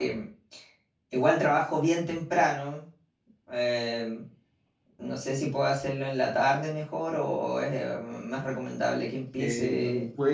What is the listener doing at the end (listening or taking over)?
taking over